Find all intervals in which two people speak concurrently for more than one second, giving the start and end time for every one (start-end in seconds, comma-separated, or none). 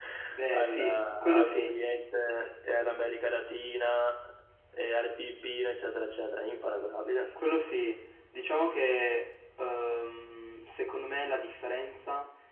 0.5-1.8